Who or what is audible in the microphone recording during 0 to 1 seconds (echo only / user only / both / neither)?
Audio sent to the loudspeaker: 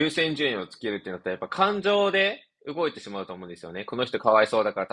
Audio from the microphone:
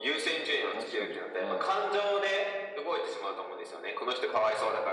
both